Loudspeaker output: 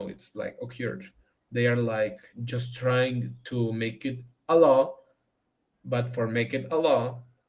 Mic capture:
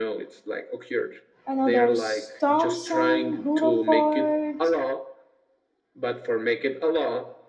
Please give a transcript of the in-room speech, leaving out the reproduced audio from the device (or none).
I know there's Thomson, Rutherford,